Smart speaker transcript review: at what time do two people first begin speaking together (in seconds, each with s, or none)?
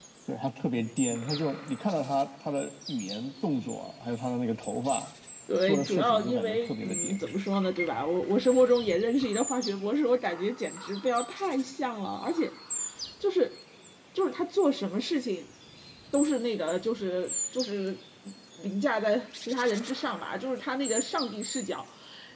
5.6 s